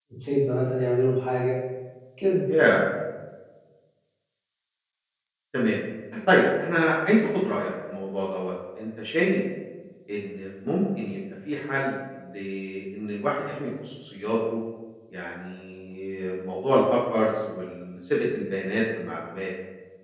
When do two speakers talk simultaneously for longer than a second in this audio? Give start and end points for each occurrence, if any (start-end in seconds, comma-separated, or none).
none